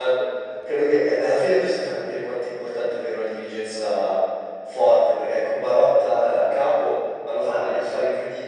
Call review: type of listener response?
listening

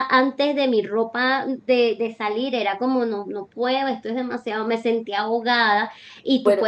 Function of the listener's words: listening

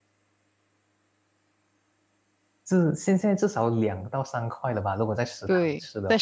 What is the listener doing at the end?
taking over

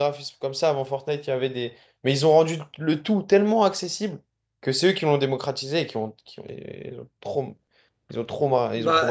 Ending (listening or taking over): taking over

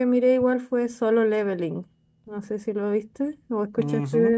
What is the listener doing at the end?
taking over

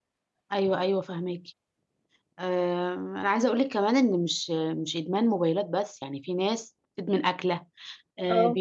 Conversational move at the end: listening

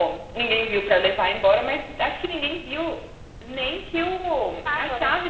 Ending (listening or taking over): listening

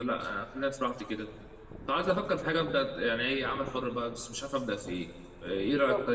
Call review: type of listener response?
taking over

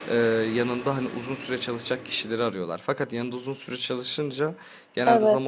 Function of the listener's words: listening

